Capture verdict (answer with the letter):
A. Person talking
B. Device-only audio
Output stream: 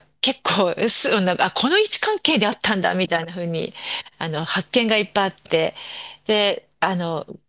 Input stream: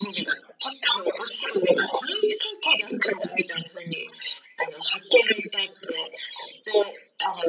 B